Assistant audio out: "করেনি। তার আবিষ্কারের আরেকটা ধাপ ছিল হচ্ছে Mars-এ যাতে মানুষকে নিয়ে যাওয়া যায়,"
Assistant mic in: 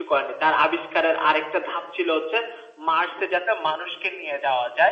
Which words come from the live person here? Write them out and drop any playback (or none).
none